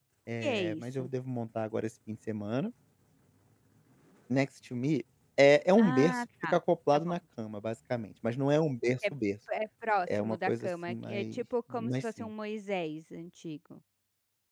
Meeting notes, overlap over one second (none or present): present